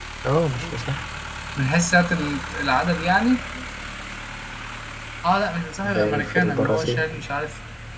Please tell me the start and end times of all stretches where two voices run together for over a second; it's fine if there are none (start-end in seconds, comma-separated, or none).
5.8-7.0